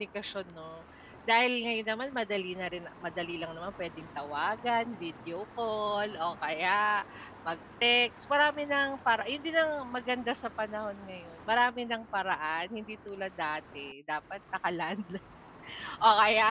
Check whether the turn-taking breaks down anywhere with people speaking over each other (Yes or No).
No